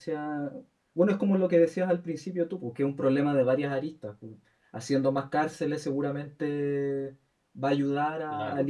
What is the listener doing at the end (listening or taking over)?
listening